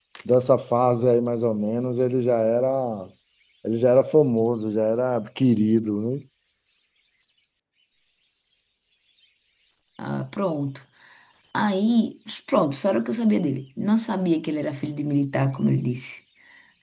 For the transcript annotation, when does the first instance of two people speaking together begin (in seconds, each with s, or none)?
none